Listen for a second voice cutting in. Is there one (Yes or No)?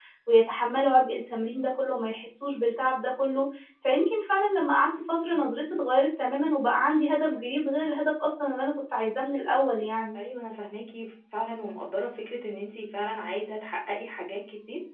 No